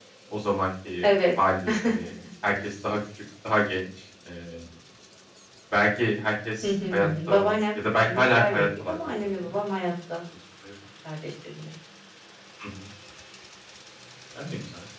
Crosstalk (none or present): present